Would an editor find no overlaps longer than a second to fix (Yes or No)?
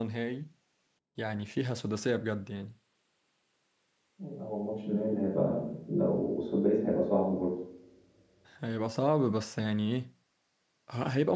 Yes